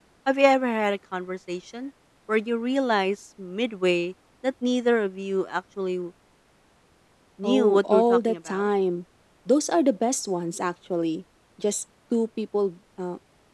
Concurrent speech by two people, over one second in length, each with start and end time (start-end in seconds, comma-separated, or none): 7.4-8.7